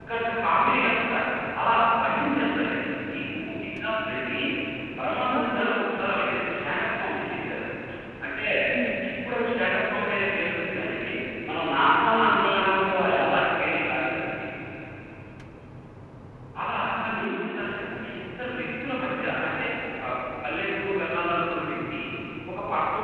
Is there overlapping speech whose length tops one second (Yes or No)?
Yes